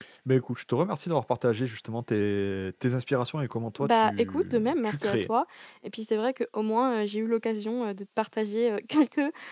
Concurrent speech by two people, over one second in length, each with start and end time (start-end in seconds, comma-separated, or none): 3.8-5.3